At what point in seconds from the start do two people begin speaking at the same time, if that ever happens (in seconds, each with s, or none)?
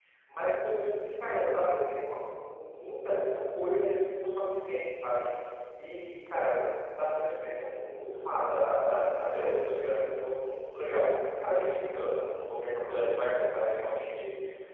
none